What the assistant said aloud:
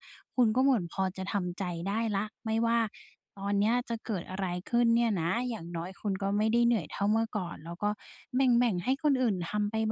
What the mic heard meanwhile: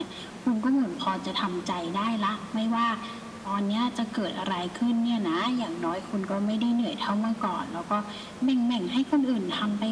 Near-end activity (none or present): none